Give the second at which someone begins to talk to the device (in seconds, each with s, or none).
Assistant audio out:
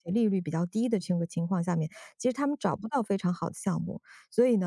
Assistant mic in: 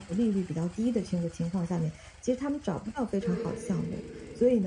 3.2 s